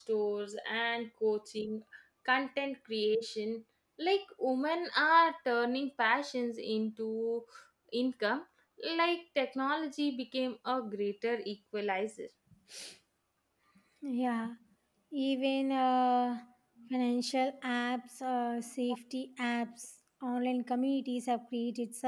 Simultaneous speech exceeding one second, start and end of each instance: none

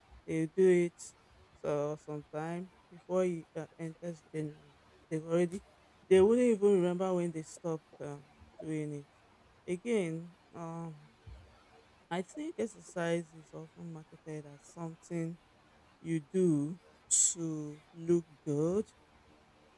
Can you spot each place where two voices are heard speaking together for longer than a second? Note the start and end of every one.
none

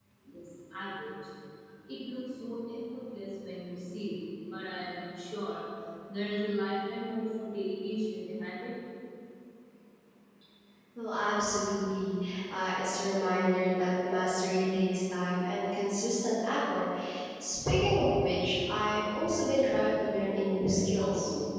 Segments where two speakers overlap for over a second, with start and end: none

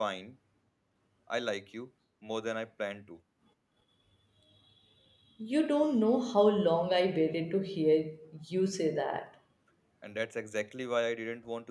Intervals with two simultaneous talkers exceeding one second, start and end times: none

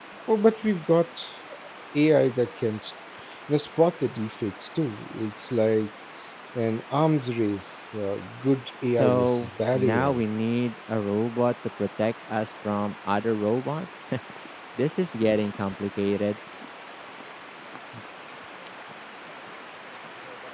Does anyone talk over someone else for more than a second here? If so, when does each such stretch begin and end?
9.0-10.2

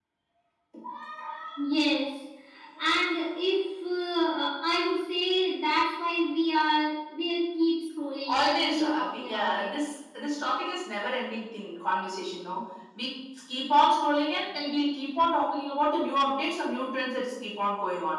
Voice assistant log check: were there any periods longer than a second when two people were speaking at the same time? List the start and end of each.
8.3-9.7

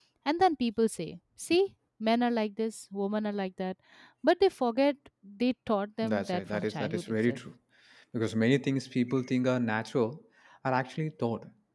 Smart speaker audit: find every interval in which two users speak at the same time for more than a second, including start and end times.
6.0-7.4

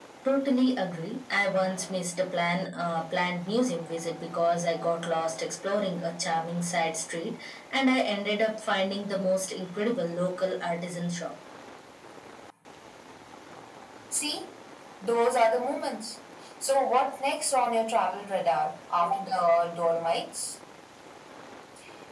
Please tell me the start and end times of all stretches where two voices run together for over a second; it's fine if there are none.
none

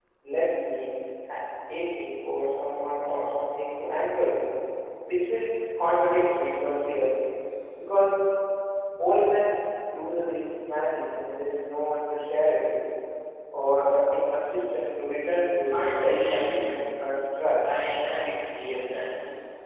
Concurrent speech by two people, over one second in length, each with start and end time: 15.7-17.0

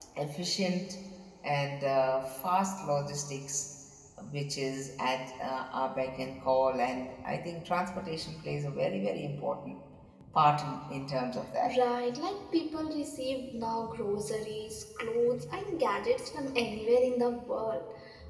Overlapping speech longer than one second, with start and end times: none

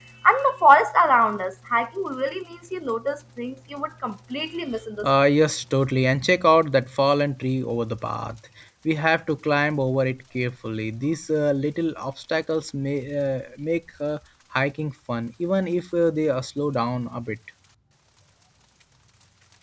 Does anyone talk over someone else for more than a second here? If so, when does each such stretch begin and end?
none

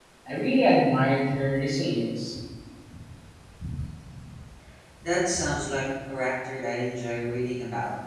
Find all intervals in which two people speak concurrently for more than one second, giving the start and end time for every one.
none

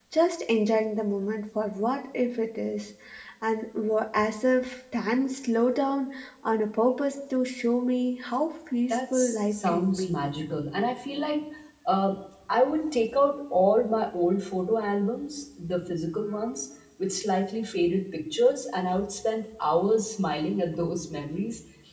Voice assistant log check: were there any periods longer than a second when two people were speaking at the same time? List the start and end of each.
8.9-10.2

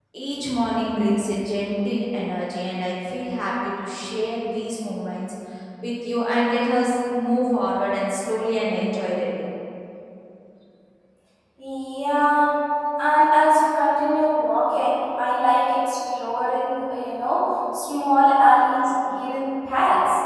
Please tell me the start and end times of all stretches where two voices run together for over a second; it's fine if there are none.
none

